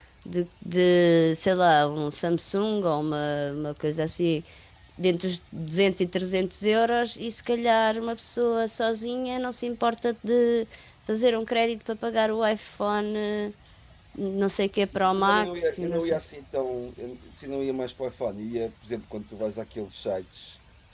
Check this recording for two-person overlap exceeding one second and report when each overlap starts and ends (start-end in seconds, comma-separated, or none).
14.8-16.2